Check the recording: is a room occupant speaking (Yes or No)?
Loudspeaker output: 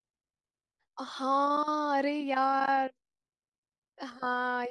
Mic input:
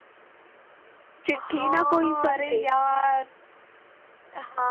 Yes